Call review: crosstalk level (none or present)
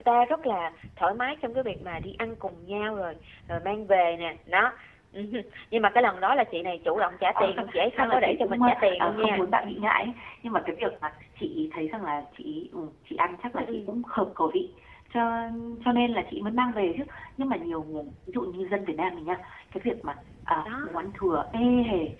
present